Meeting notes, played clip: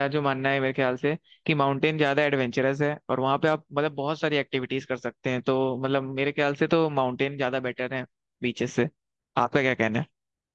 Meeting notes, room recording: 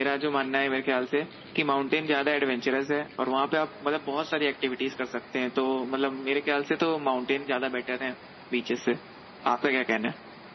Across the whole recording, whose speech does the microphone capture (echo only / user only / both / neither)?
echo only